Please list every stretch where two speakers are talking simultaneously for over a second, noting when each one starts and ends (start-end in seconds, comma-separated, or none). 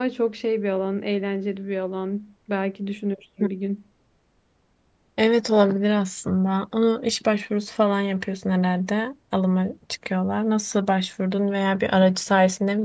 none